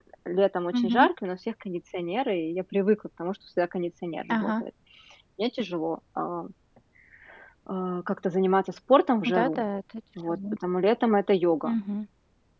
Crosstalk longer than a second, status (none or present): none